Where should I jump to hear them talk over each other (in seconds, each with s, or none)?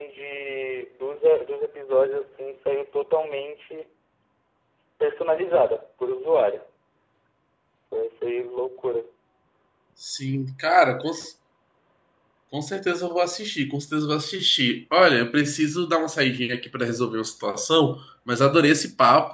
none